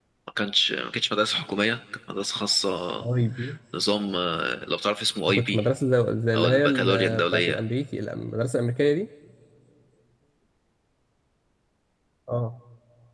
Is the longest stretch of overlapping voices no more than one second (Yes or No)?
No